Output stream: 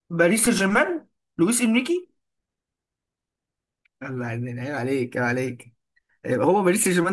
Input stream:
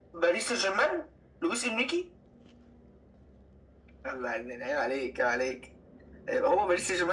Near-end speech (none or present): none